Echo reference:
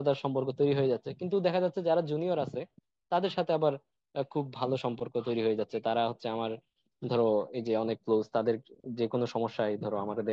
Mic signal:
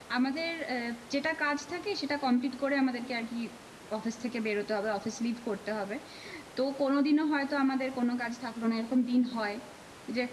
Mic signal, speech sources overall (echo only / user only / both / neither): user only